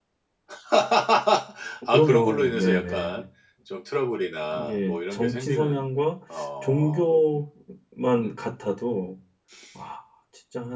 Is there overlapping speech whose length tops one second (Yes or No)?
Yes